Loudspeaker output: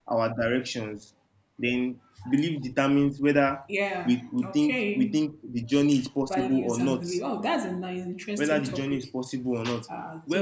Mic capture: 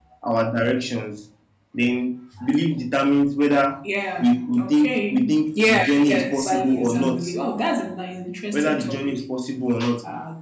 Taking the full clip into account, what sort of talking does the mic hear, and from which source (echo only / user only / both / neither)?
both